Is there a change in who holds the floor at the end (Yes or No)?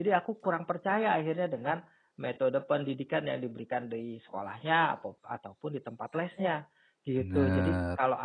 No